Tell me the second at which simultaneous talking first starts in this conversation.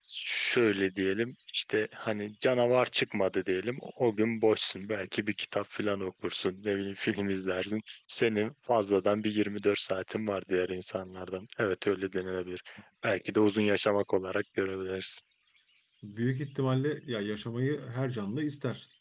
none

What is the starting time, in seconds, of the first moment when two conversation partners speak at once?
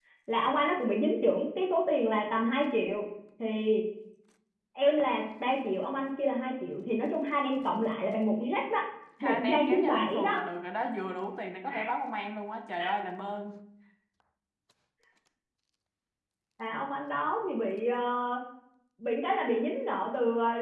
9 s

